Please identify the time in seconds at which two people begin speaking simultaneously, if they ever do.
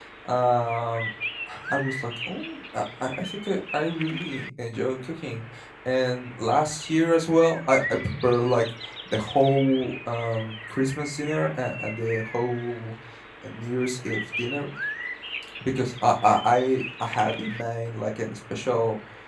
none

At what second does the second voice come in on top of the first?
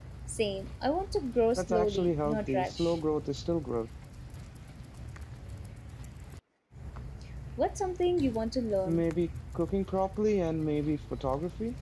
1.6 s

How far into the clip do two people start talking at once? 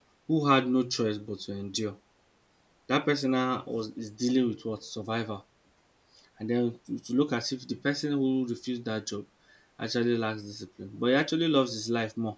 none

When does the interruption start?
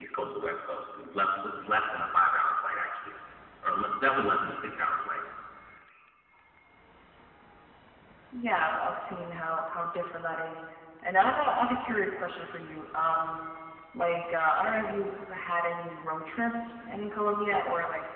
none

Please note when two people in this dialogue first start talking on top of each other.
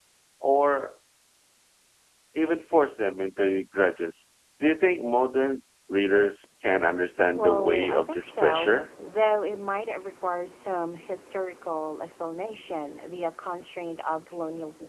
7.3 s

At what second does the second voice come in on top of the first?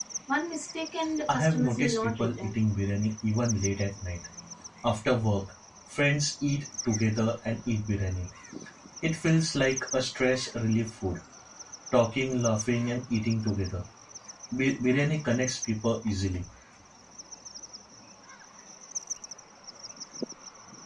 1.3 s

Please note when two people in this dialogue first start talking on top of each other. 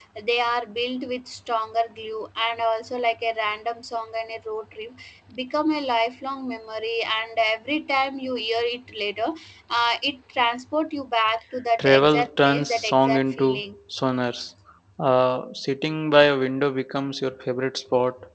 11.8 s

